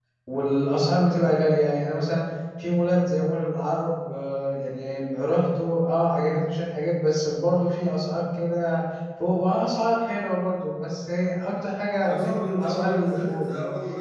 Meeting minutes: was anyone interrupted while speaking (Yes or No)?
Yes